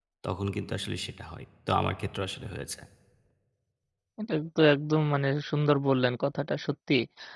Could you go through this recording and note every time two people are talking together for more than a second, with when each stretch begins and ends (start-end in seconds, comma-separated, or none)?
none